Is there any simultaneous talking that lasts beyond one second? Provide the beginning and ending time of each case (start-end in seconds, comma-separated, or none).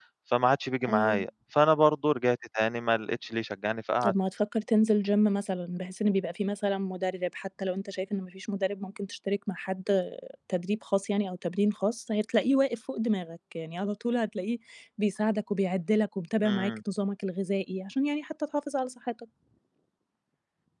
none